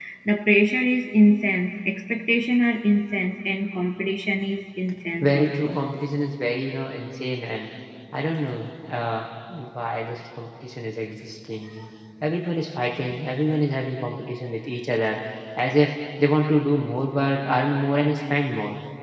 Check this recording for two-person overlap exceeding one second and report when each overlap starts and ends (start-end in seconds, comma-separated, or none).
none